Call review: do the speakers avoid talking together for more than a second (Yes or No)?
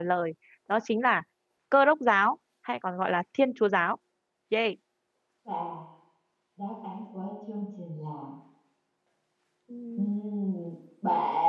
Yes